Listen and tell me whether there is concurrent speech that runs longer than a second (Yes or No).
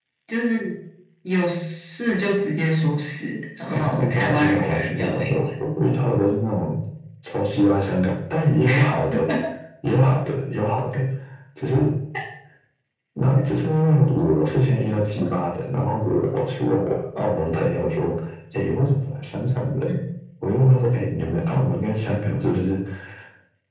Yes